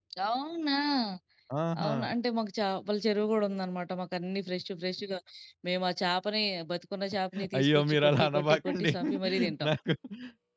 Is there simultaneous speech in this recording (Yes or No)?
Yes